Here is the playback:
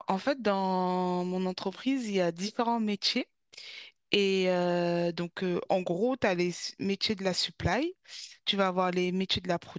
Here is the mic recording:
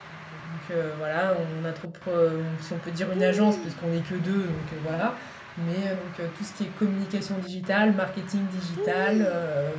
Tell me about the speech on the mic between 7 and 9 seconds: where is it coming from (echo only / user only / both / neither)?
user only